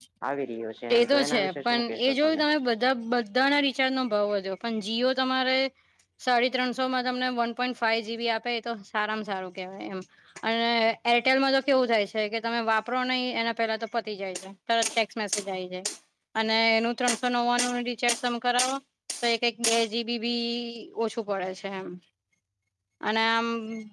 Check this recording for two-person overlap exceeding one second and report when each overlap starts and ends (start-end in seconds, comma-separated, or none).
0.9-2.4